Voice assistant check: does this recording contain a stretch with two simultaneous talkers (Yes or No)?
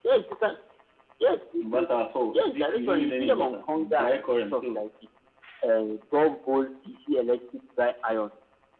Yes